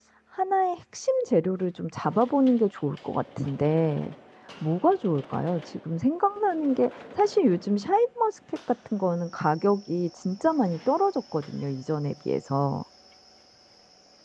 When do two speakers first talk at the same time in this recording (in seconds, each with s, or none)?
none